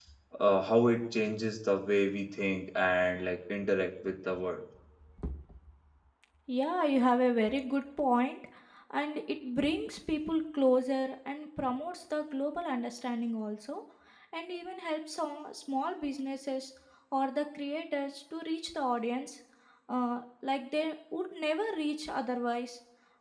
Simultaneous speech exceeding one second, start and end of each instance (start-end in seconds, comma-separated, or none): none